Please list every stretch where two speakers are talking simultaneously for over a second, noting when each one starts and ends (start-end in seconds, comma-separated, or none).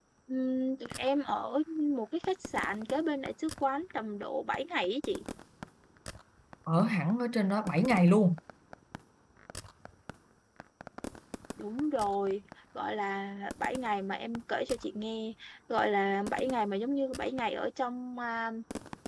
none